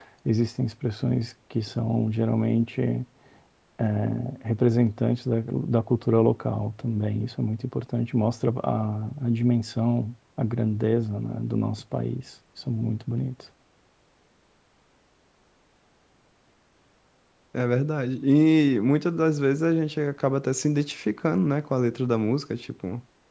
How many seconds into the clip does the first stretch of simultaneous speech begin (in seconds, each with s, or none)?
none